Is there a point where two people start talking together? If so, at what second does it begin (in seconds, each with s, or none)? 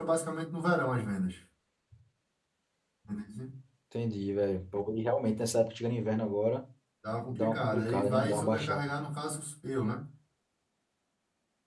7.3 s